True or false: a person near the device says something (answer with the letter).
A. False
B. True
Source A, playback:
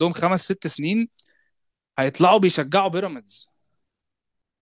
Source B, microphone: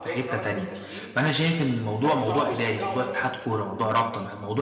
B